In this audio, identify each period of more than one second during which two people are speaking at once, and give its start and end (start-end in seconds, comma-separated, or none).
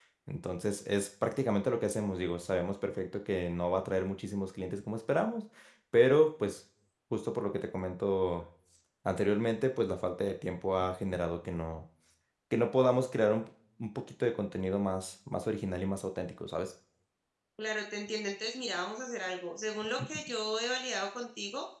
none